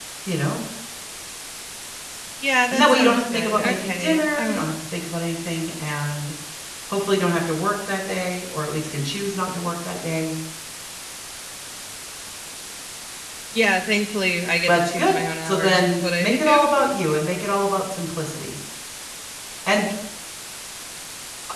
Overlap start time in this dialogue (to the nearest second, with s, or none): 3 s